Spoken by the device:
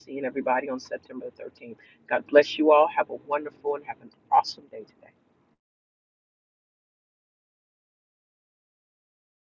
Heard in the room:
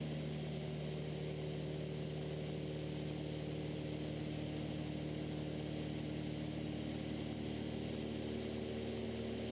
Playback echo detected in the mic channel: No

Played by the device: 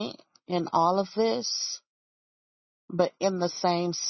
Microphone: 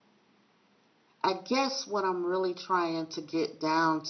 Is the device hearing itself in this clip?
No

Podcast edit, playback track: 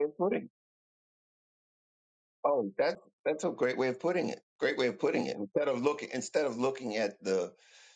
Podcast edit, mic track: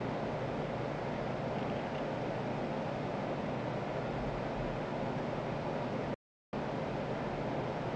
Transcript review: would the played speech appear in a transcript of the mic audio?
No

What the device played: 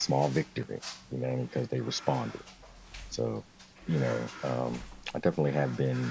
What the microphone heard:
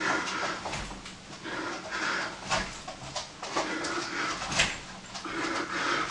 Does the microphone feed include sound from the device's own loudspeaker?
No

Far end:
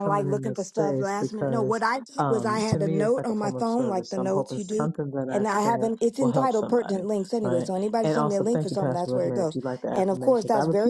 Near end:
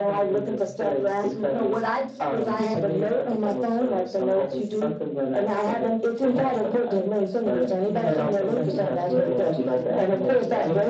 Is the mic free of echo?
No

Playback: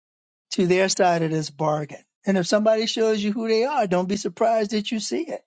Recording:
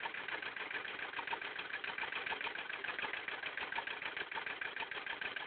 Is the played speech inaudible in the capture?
Yes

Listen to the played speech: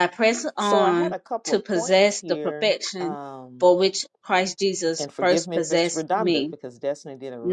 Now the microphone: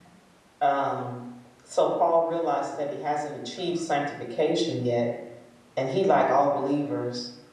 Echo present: No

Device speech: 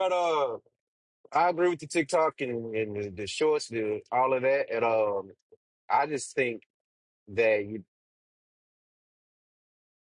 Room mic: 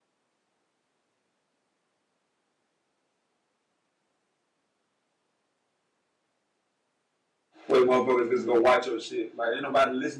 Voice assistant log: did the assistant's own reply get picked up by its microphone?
No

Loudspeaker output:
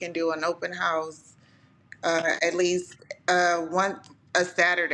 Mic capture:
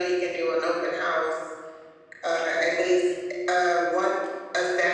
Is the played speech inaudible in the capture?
No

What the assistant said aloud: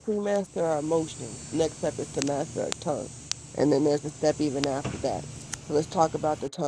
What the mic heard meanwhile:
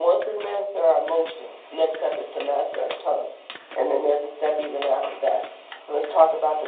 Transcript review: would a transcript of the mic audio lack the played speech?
No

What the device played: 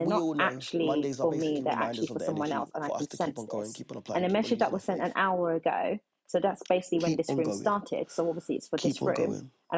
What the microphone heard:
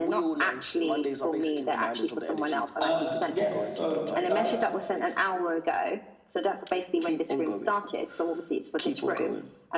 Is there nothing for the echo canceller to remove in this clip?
No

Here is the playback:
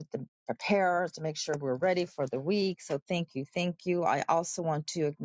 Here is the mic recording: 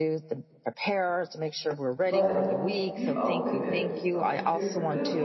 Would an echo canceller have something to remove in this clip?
Yes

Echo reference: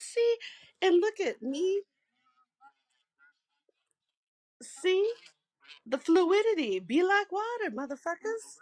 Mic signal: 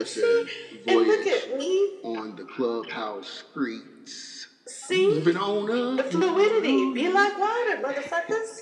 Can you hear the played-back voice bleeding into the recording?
Yes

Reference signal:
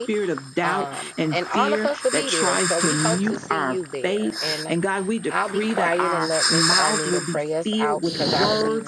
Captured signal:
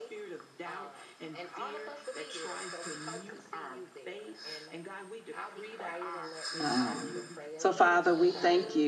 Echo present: Yes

